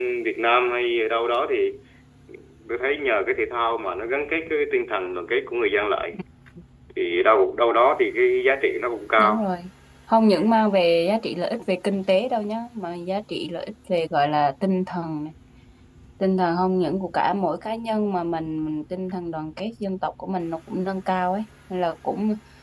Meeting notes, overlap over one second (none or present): none